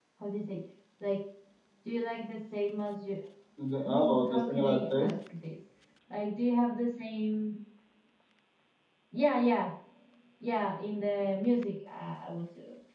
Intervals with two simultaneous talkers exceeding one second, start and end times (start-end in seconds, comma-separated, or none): 3.8-5.2